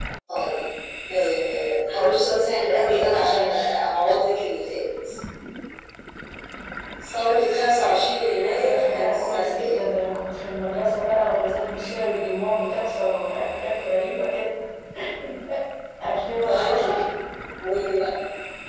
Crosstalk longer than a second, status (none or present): present